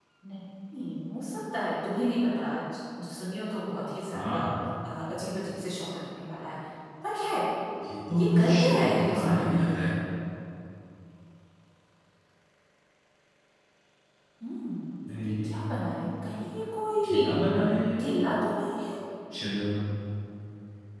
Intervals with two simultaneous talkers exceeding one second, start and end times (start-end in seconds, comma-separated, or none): 8.2-9.8